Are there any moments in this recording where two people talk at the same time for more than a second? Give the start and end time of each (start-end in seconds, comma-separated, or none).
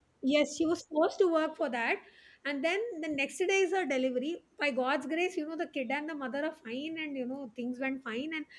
none